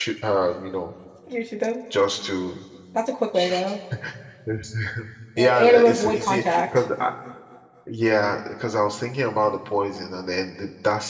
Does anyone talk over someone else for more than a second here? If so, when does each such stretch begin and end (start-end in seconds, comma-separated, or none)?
5.4-6.6